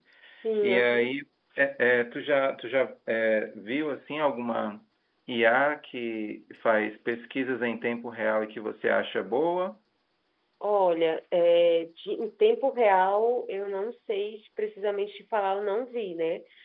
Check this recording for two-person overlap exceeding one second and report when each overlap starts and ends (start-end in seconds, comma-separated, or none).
none